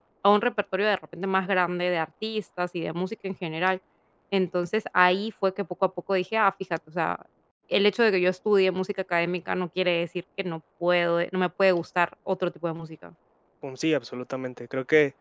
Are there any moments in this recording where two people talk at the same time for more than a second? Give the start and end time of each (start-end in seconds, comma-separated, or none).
none